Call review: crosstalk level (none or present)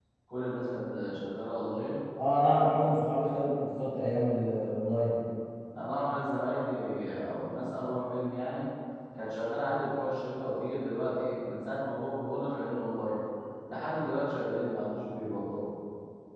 none